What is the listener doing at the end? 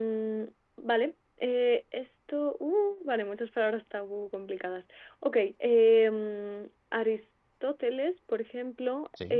listening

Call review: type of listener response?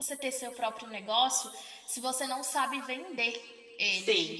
listening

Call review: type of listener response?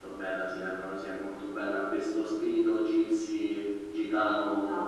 listening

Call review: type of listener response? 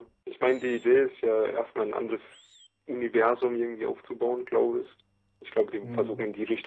listening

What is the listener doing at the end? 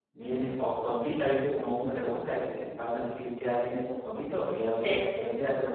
listening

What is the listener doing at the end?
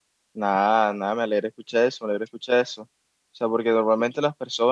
listening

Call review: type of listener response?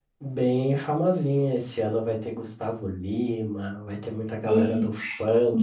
listening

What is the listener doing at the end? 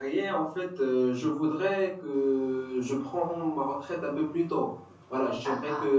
listening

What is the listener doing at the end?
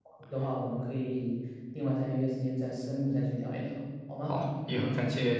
taking over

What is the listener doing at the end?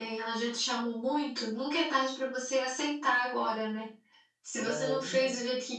listening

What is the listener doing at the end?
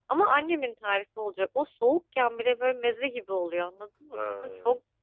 listening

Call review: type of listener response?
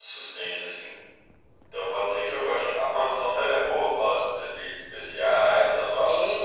taking over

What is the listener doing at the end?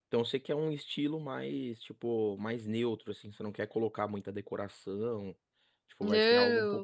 taking over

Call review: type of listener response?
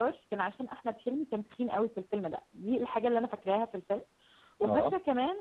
listening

